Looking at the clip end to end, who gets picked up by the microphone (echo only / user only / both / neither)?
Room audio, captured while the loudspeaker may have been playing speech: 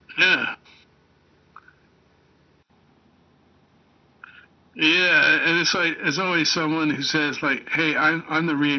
echo only